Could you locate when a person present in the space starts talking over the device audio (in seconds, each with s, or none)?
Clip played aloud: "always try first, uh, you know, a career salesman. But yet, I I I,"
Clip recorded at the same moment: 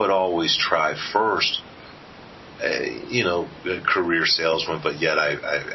none